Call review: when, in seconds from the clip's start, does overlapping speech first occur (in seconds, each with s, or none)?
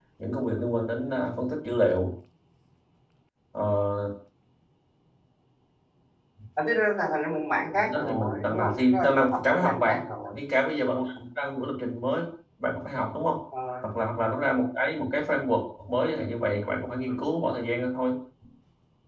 7.8 s